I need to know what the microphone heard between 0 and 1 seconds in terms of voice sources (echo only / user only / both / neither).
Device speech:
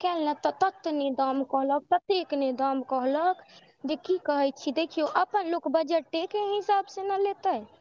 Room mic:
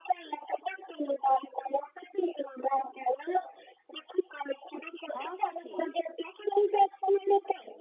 echo only